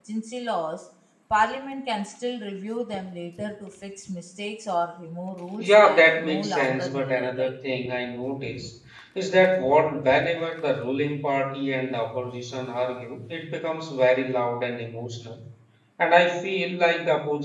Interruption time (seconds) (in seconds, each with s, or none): 5.6 s